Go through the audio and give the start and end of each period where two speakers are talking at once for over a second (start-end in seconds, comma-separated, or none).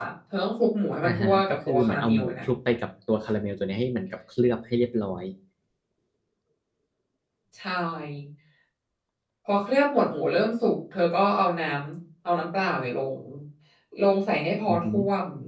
1.0-2.5